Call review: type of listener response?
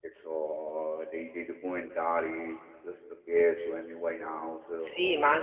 taking over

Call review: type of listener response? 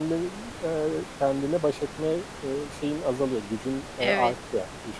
taking over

